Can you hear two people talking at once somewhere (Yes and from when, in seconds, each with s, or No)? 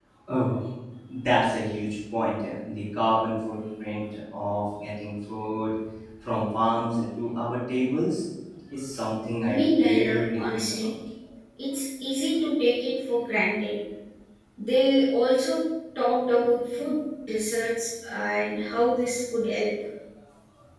Yes, from 9.5 s